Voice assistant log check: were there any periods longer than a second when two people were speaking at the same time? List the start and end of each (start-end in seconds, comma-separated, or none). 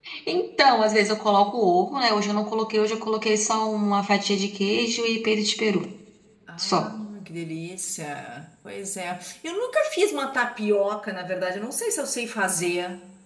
none